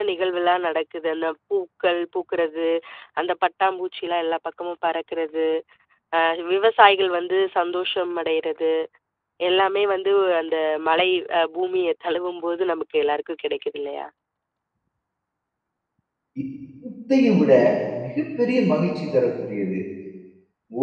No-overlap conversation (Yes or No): Yes